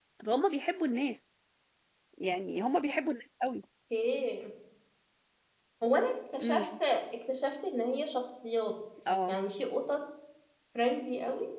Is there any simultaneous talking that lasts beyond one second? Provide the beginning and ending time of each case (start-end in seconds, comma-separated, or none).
none